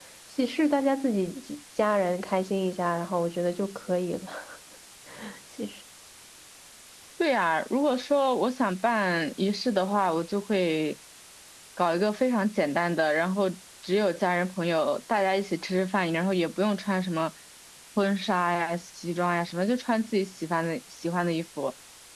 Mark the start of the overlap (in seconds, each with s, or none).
none